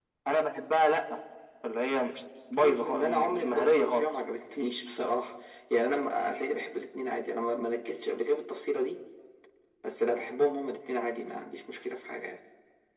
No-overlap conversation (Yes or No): No